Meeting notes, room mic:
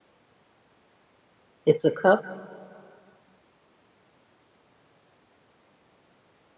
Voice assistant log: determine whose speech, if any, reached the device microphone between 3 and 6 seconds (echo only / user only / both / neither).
neither